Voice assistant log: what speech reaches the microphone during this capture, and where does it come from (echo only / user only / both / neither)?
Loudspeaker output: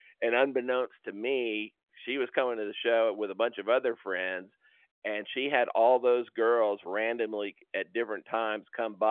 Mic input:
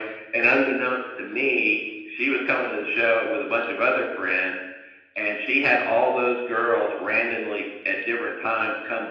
echo only